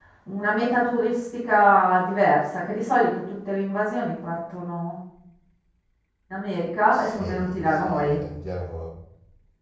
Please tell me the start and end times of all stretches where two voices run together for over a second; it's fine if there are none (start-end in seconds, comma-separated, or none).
6.9-8.2